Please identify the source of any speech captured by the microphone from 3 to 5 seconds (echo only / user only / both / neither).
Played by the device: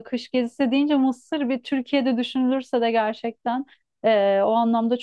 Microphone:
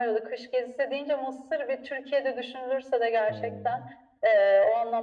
both